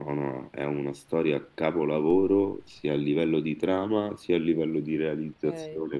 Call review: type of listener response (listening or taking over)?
taking over